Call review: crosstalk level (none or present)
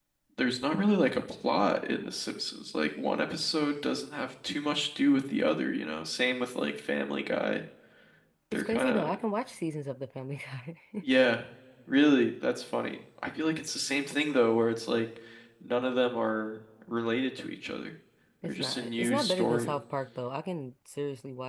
present